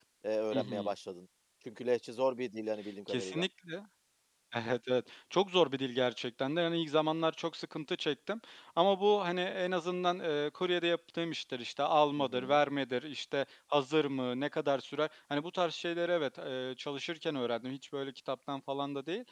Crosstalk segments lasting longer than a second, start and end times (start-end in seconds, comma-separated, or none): none